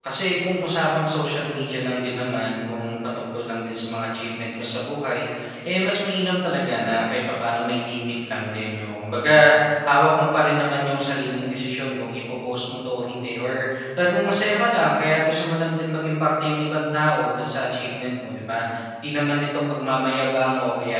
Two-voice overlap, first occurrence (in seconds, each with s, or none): none